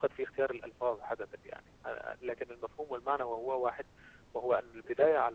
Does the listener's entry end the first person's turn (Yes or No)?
No